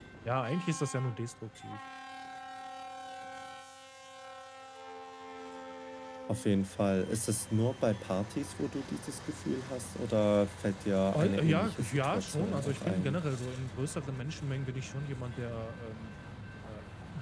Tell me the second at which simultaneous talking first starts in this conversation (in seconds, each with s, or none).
11.1 s